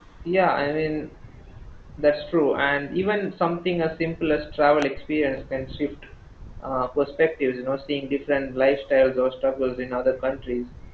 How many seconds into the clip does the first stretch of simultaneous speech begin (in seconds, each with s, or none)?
none